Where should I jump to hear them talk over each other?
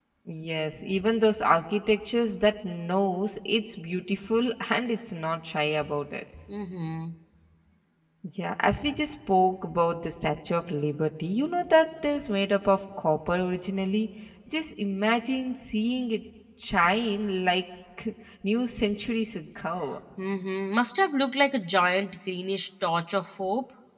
none

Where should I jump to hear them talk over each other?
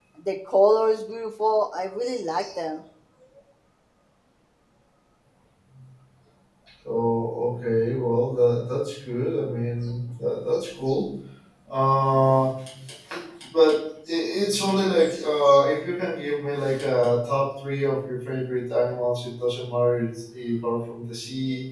none

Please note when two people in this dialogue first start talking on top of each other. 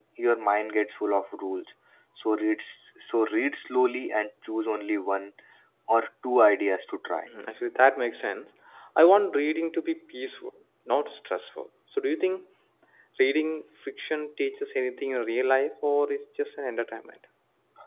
none

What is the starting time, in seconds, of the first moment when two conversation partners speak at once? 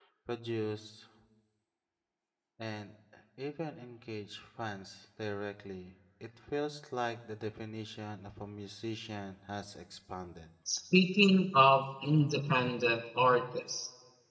none

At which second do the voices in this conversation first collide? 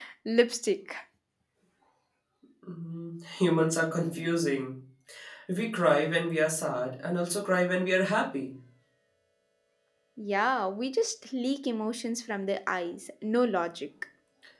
none

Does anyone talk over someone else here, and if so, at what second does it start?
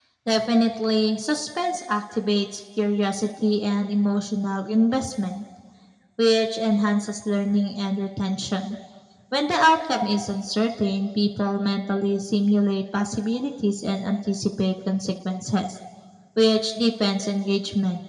none

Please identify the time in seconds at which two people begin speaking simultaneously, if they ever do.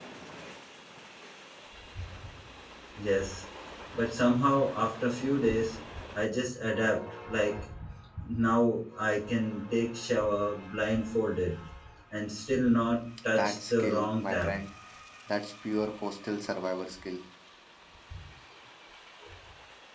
13.3 s

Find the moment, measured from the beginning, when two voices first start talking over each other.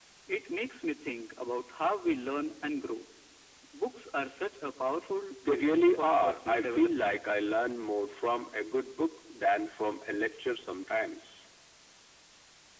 5.4 s

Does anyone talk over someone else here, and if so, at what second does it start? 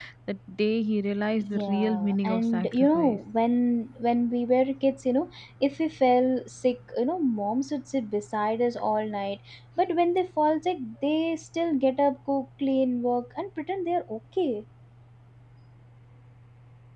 1.4 s

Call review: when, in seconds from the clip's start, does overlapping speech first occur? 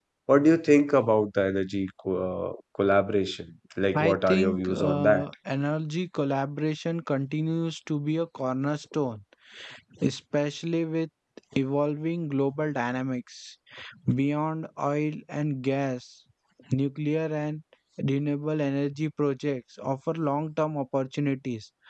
3.9 s

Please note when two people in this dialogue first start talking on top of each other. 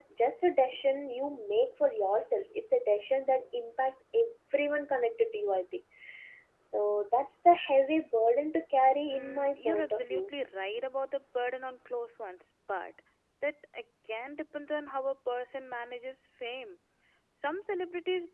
9.1 s

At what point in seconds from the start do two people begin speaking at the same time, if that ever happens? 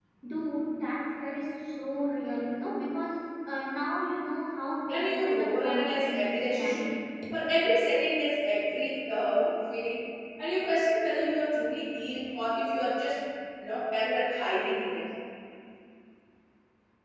4.9 s

